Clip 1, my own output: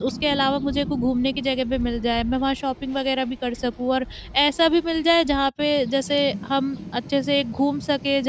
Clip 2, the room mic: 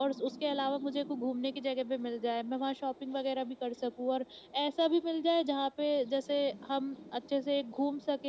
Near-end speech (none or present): none